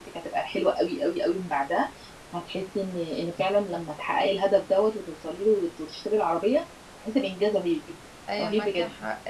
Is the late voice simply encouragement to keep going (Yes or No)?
No